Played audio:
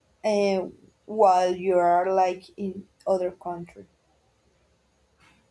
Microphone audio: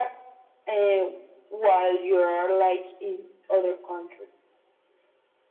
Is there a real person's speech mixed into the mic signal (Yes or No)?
No